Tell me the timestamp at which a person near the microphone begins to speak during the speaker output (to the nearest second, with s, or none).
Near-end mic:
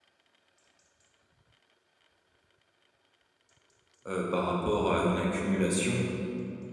4 s